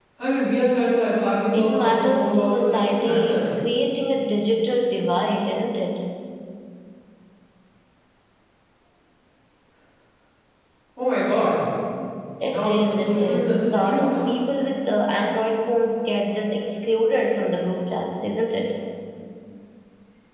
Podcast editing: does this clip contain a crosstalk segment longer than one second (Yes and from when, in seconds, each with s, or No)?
Yes, from 1.5 s